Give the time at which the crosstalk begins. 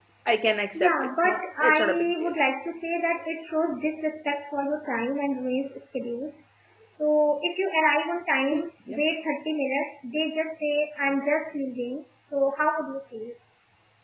0.8 s

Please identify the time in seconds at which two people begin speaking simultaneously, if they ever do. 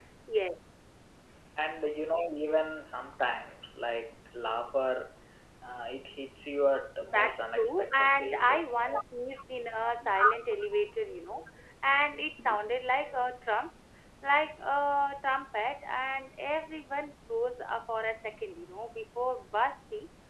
7.1 s

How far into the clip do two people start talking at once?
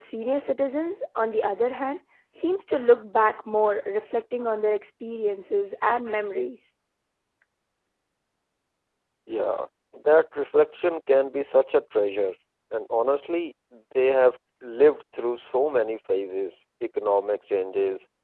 none

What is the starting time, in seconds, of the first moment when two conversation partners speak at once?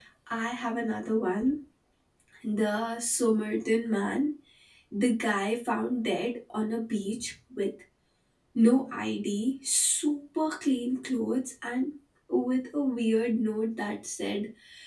none

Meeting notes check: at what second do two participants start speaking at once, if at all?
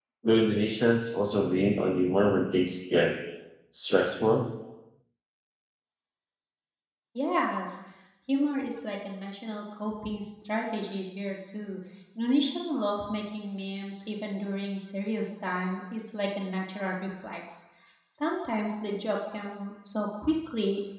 none

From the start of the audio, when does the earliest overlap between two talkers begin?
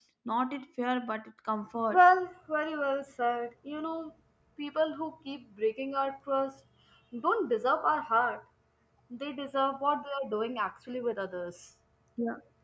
none

